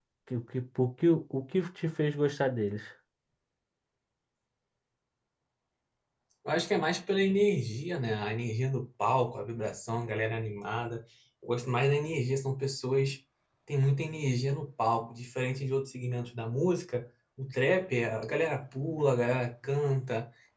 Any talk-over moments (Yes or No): No